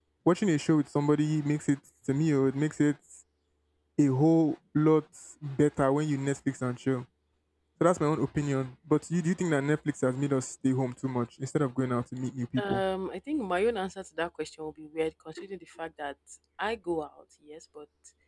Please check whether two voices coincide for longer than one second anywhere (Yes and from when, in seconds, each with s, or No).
No